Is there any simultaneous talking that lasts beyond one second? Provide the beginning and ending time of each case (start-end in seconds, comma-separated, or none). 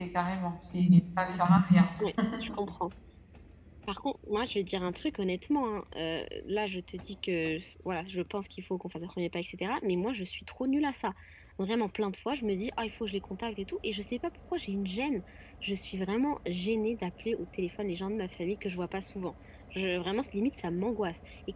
none